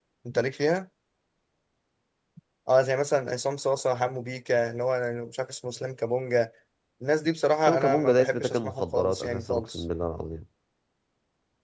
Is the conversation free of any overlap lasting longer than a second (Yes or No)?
No